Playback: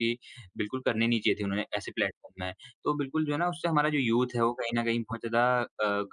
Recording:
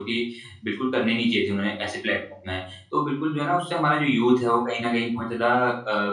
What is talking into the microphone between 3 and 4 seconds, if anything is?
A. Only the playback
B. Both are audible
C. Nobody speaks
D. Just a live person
A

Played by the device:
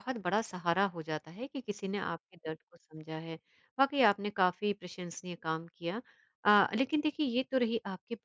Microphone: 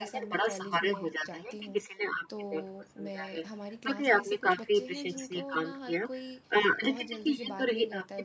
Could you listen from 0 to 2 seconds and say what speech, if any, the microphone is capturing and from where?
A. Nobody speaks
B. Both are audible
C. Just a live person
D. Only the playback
B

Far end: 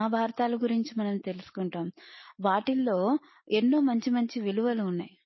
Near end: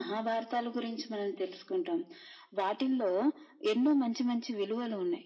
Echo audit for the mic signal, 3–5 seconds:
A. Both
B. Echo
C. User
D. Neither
B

